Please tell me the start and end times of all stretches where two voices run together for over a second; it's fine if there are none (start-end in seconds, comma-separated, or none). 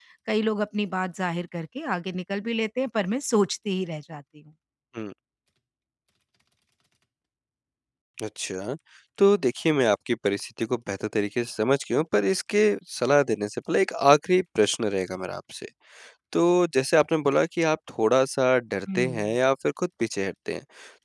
none